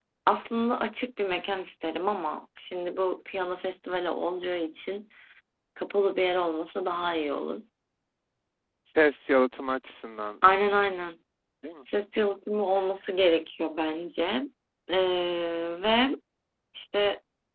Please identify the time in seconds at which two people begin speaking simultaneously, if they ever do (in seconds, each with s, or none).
none